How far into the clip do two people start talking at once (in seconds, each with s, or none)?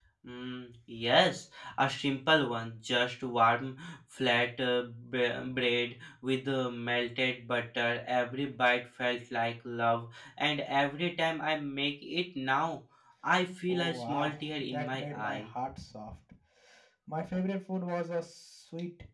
13.7 s